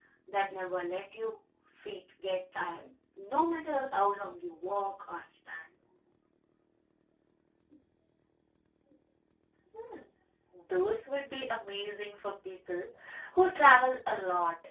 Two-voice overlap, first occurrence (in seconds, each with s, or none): none